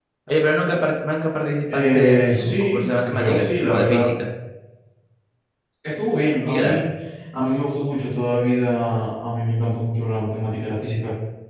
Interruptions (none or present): present